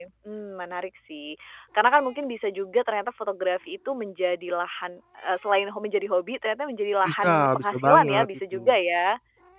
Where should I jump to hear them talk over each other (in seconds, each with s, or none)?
7.0 s